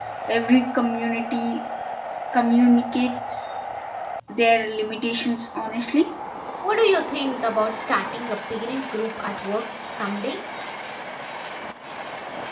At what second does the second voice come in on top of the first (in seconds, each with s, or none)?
none